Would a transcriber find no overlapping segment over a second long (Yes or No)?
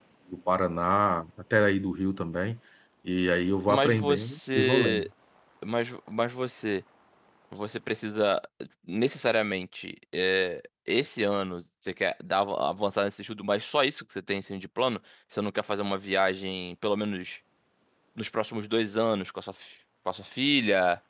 No